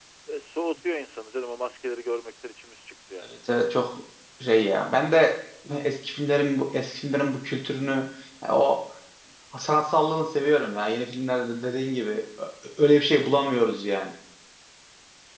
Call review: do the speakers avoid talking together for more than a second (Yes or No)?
Yes